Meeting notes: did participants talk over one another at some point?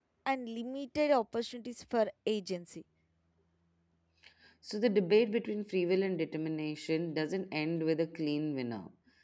No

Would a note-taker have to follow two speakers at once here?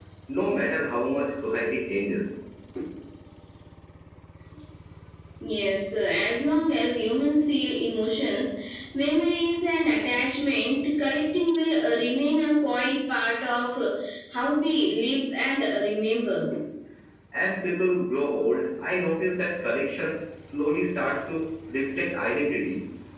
No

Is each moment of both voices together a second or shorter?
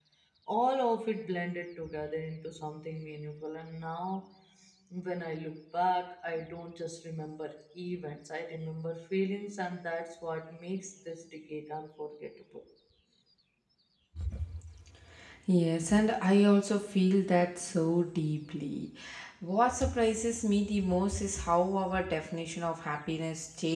Yes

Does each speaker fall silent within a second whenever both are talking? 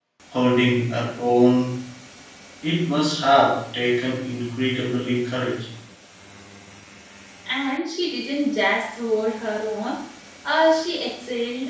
Yes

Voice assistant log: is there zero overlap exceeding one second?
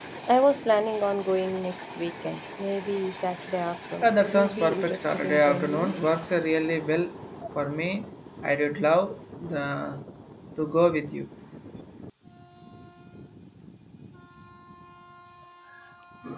No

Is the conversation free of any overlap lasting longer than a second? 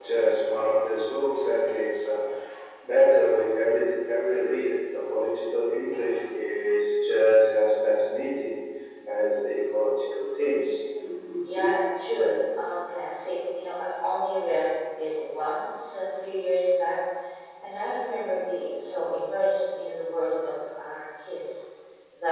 Yes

